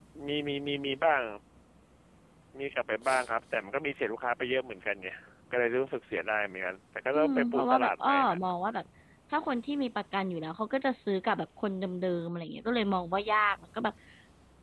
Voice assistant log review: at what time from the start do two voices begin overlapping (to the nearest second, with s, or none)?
7 s